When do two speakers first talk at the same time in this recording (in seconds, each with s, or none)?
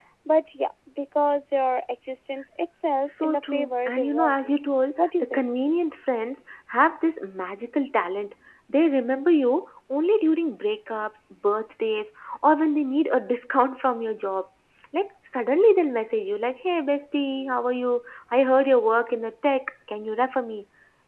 3.1 s